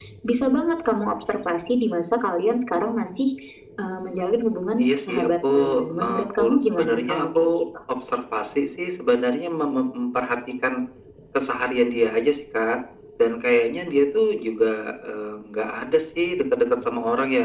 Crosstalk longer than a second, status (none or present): present